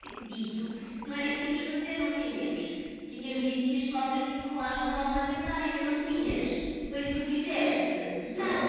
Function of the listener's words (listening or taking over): taking over